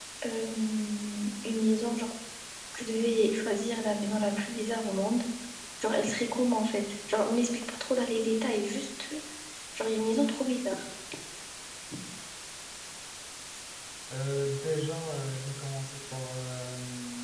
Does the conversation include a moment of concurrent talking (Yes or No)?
No